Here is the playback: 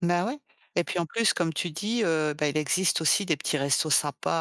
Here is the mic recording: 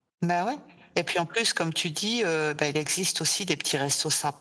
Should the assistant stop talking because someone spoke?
No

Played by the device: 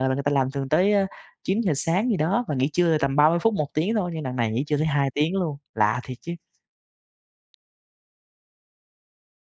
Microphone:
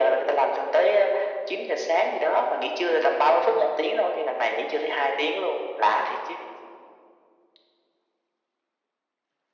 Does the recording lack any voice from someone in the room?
Yes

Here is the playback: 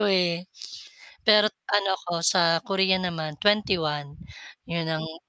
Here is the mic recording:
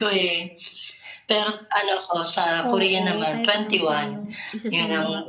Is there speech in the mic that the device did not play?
Yes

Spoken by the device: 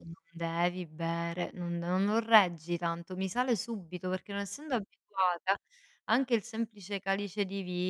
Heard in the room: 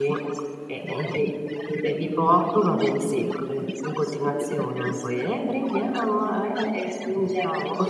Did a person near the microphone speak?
Yes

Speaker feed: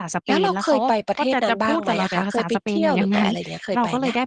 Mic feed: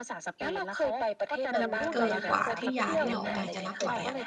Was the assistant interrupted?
Yes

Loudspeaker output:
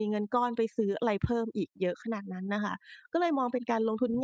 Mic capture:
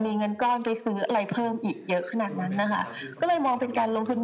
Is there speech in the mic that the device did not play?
Yes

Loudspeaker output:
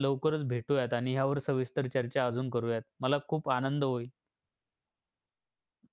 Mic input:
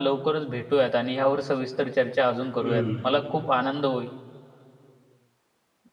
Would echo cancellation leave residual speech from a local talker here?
Yes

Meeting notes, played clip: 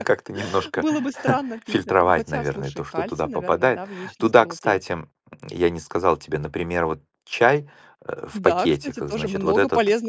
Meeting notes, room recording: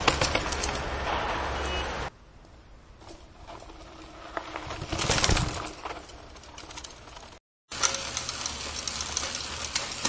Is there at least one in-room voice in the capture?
No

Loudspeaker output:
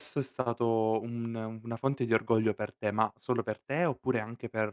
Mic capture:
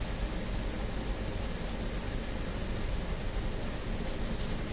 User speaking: No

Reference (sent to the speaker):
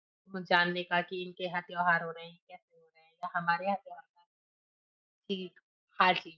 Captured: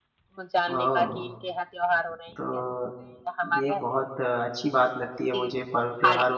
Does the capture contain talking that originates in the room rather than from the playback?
Yes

